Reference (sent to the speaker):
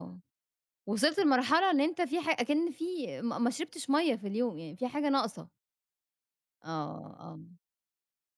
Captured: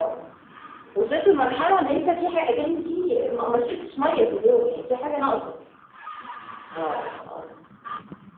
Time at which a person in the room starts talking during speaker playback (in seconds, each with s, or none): none